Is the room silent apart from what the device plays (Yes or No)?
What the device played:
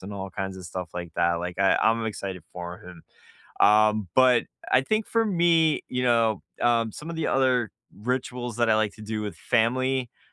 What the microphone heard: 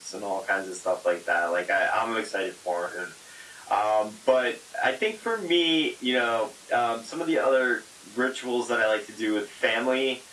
Yes